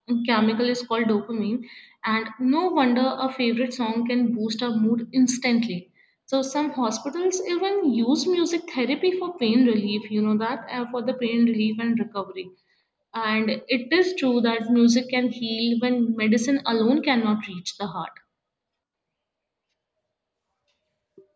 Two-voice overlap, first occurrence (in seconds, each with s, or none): none